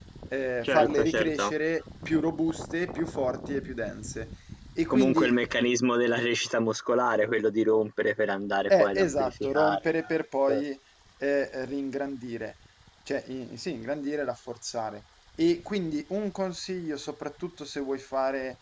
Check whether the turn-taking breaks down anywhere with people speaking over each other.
Yes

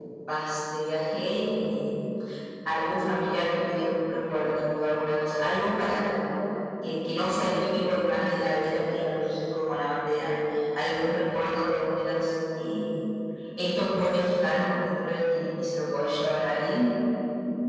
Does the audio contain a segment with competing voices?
No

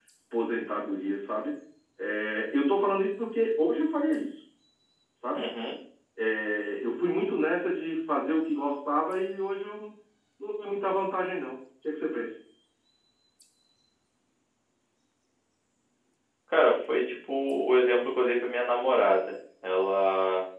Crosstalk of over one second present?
No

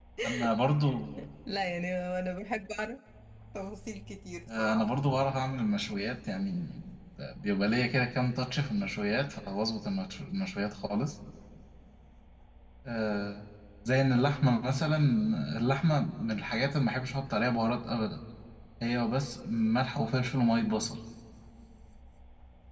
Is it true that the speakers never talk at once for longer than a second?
Yes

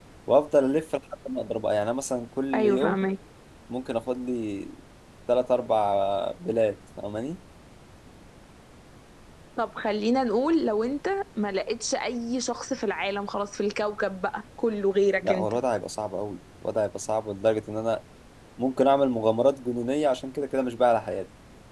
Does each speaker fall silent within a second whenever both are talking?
Yes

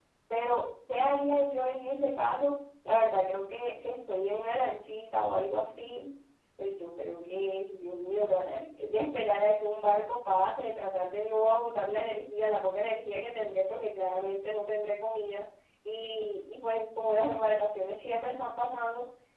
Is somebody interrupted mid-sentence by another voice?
No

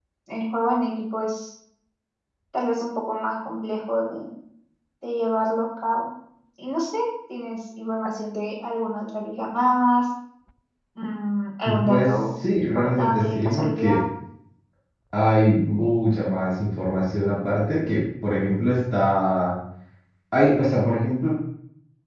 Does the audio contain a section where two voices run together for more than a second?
Yes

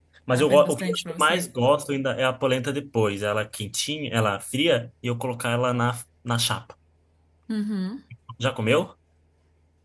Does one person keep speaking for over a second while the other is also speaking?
Yes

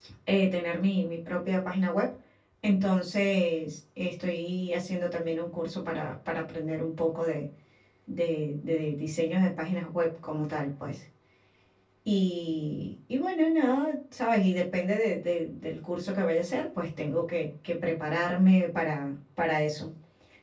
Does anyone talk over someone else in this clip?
No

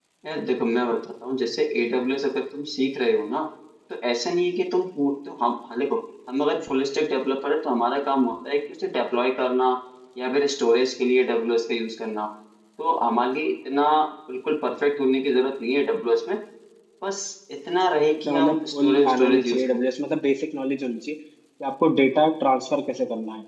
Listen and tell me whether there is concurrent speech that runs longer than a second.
Yes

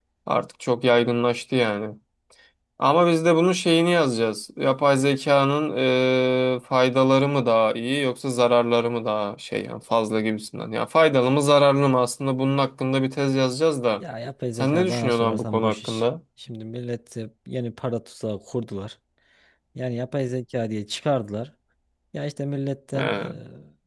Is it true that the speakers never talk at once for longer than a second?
No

